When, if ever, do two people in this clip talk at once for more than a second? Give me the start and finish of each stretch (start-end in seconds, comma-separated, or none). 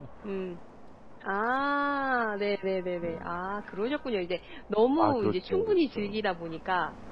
5.0-6.2